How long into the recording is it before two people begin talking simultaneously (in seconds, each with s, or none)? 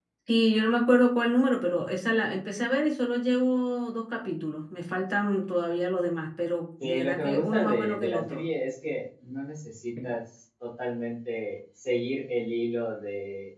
6.8 s